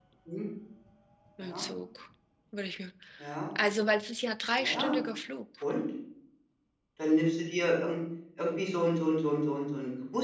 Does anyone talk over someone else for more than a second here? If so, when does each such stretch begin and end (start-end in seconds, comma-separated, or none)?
none